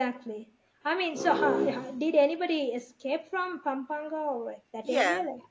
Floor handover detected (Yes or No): Yes